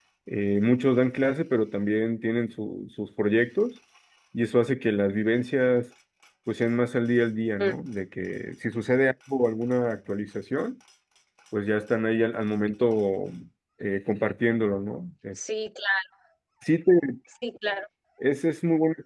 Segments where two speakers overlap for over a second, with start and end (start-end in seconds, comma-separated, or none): none